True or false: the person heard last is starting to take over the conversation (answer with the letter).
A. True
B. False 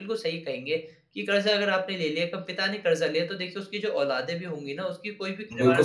A